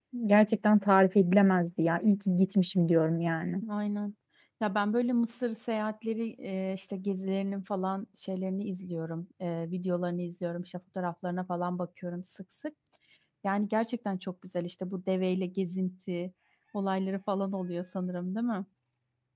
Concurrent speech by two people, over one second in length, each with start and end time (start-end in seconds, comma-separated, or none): none